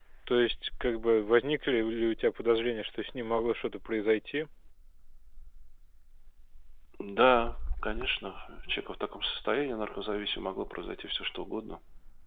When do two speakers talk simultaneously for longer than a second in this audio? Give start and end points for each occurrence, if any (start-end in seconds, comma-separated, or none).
none